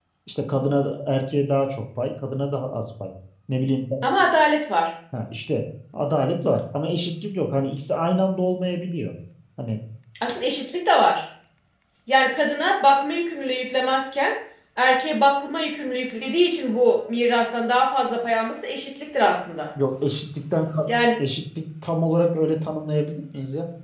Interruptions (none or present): none